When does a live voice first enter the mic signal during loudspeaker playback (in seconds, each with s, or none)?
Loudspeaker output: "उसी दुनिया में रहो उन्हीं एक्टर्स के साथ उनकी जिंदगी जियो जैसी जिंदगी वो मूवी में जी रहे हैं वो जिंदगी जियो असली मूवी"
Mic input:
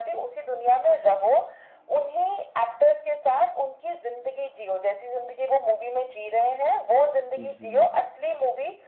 7.4 s